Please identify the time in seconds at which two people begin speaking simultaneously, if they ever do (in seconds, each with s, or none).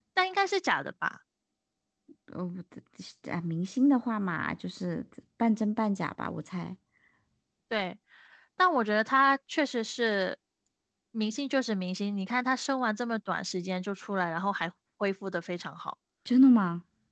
none